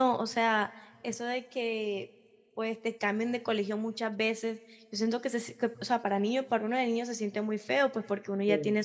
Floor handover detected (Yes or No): No